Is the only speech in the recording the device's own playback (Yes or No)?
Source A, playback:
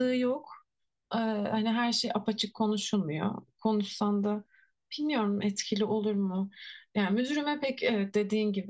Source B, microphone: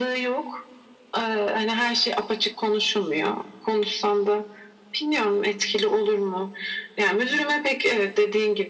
Yes